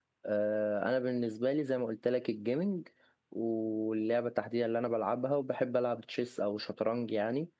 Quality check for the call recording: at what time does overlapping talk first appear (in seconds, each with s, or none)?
none